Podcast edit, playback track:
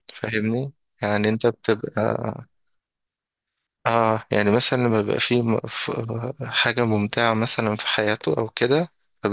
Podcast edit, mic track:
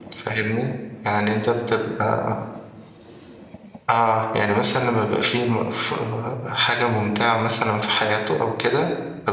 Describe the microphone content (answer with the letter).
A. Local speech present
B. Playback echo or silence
B